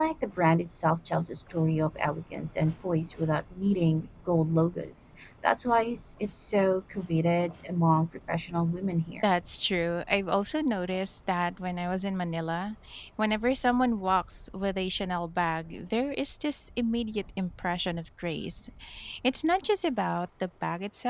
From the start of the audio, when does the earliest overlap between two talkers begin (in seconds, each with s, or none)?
none